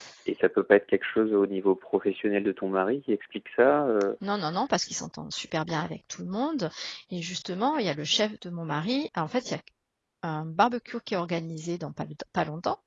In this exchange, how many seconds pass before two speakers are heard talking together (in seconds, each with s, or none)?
none